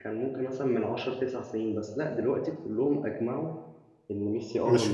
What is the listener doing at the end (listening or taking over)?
taking over